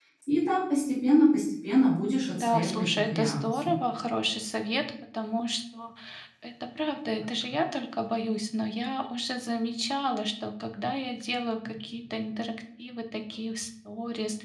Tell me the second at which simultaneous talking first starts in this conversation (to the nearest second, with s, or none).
2 s